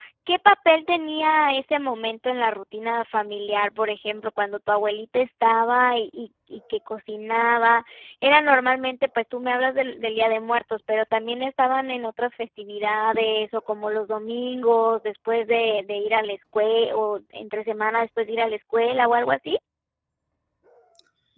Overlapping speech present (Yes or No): No